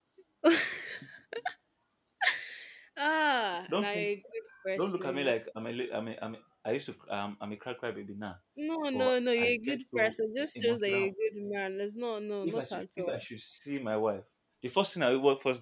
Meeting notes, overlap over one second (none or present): present